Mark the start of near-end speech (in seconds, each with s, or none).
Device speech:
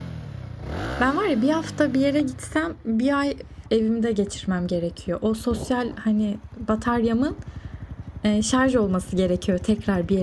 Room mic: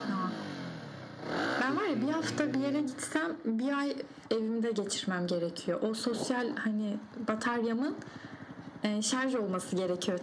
1.6 s